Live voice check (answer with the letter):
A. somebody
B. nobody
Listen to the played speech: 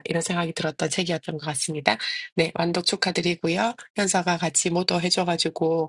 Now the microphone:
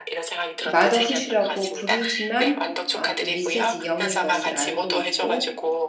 A